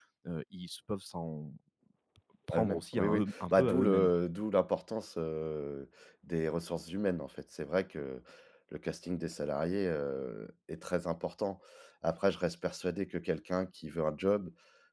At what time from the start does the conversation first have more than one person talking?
2.5 s

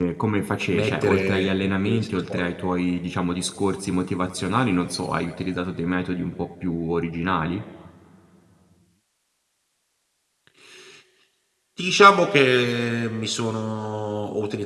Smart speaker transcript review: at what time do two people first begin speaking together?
0.7 s

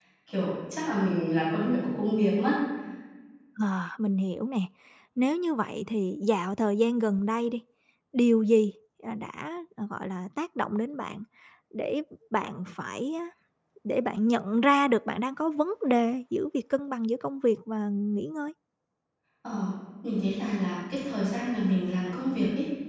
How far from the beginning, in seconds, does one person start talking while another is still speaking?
none

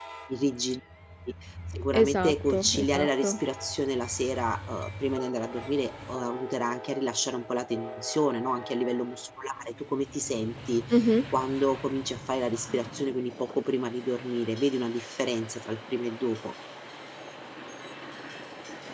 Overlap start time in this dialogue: 2.0 s

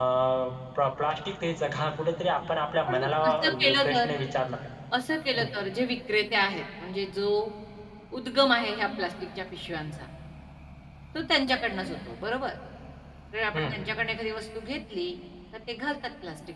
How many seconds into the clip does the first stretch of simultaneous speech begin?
2.9 s

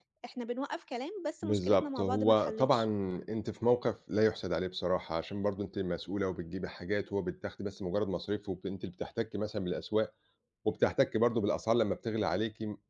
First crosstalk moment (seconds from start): 1.4 s

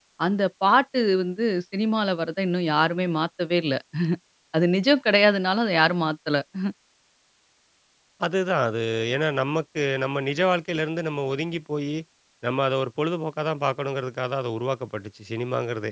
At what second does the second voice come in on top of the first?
none

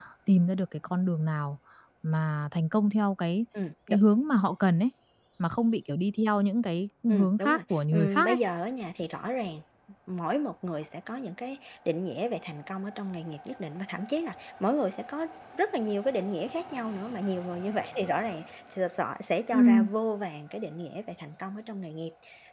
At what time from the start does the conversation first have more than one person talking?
7.1 s

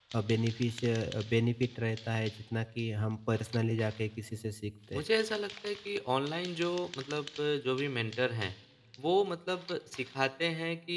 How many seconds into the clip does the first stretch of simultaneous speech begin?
none

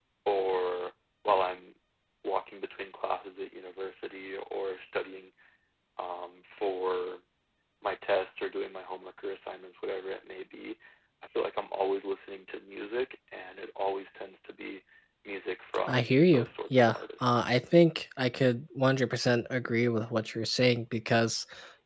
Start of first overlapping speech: 15.9 s

